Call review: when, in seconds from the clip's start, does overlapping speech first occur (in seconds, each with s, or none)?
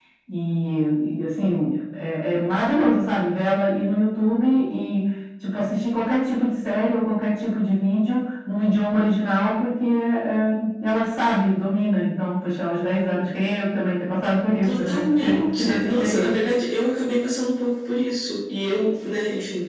14.6 s